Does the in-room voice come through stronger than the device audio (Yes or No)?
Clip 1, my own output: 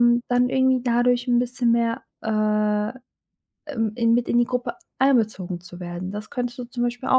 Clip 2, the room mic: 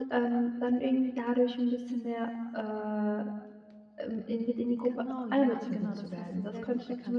No